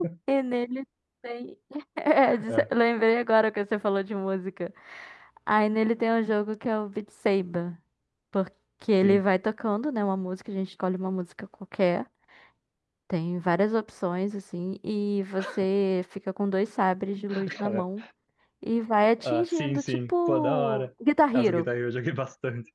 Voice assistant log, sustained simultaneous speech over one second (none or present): present